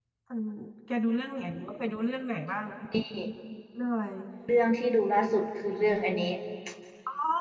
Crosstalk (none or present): none